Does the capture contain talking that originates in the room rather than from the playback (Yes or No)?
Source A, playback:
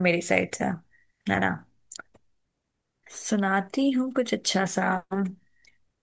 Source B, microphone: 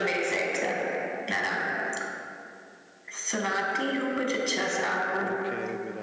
Yes